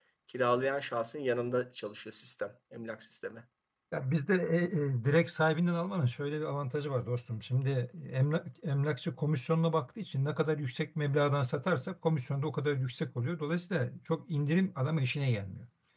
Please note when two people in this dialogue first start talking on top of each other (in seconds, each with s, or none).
none